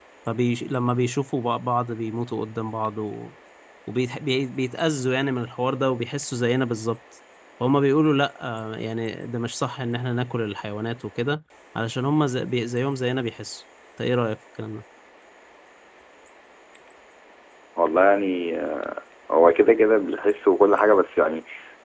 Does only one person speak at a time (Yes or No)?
Yes